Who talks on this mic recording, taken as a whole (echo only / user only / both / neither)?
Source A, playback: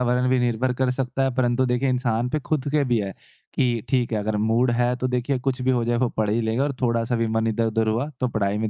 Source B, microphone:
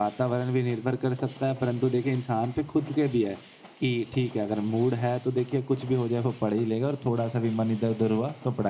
echo only